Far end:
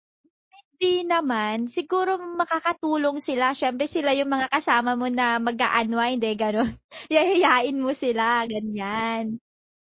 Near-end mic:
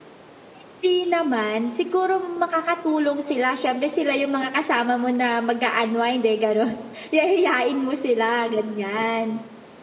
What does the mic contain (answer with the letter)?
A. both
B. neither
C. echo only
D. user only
C